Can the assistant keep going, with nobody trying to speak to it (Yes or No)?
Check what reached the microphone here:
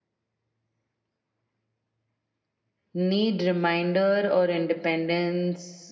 No